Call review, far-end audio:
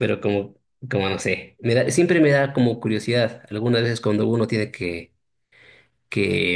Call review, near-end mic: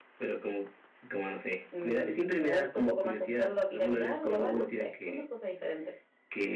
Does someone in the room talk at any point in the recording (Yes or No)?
Yes